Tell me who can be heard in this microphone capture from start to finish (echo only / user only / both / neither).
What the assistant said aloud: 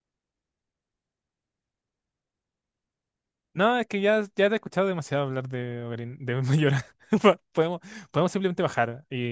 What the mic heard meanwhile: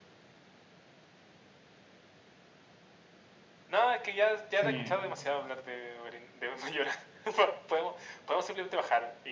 both